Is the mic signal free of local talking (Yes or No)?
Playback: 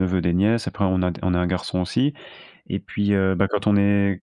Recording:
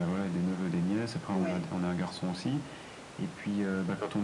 No